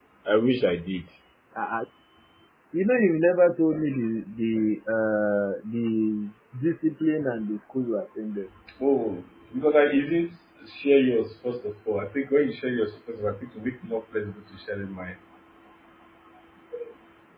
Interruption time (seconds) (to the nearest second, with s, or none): none